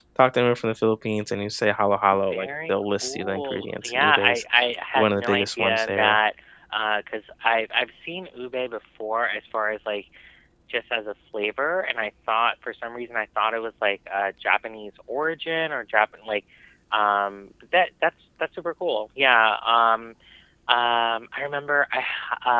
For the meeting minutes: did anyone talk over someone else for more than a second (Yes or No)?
Yes